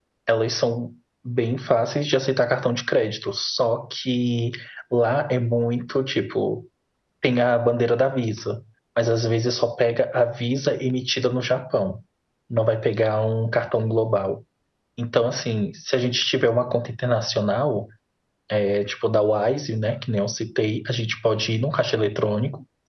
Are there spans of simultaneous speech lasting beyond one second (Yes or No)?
No